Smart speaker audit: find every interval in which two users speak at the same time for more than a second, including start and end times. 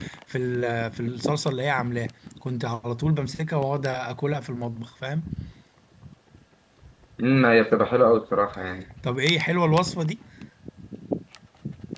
none

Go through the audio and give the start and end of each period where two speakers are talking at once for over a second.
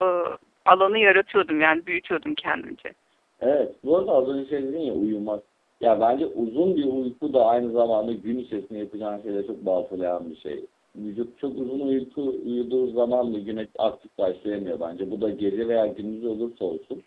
none

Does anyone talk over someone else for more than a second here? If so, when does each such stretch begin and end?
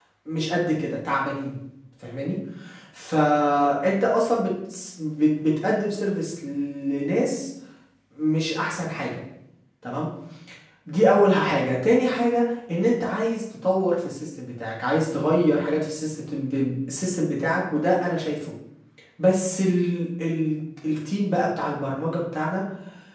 none

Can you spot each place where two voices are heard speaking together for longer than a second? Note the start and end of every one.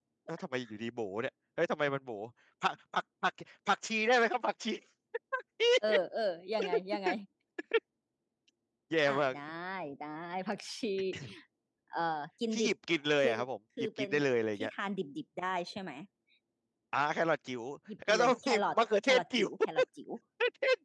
18.1-19.5

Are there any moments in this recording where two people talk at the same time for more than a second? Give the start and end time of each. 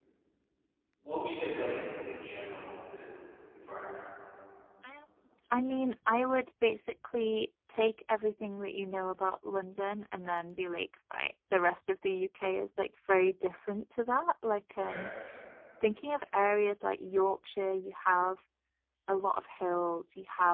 none

